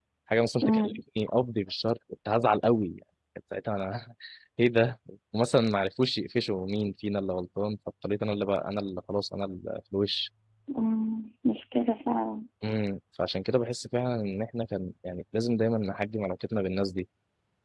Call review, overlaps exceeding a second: none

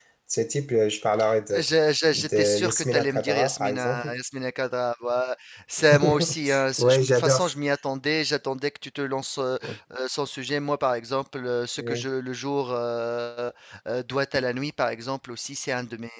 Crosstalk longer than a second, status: present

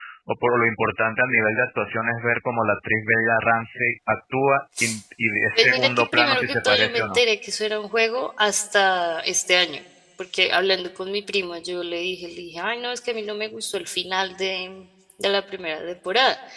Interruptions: present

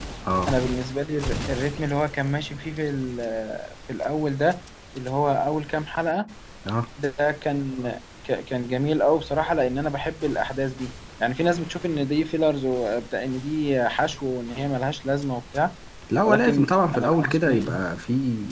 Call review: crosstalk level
present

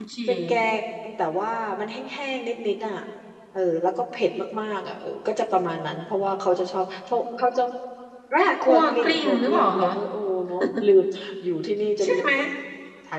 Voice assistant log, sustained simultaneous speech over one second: present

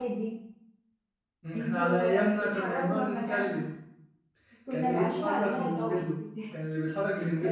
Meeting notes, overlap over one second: present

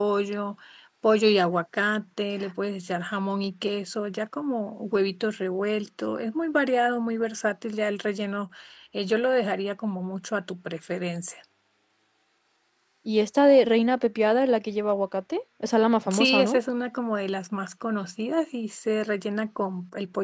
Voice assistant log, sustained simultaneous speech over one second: none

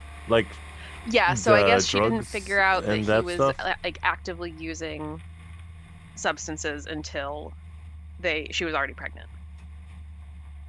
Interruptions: present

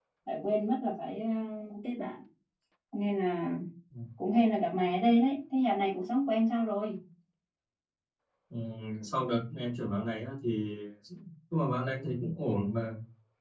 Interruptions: none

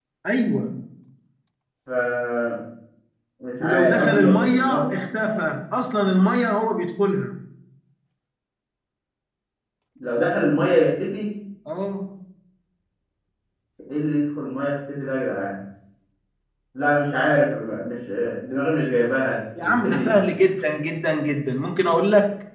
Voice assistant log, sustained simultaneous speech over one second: present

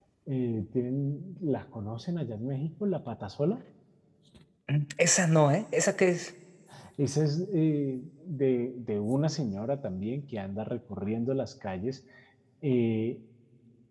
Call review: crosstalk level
none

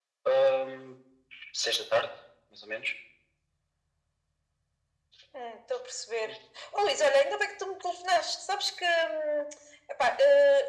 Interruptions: none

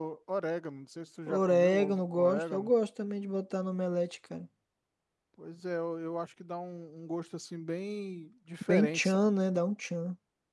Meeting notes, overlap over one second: present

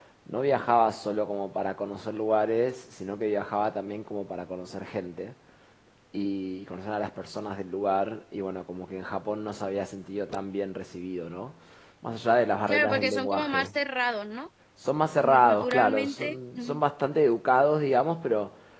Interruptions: present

